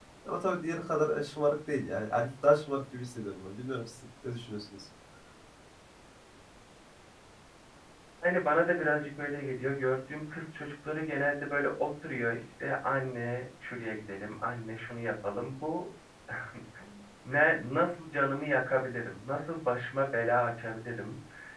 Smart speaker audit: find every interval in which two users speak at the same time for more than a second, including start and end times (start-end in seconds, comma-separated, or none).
none